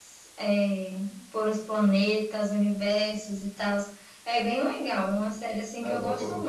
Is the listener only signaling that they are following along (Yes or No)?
No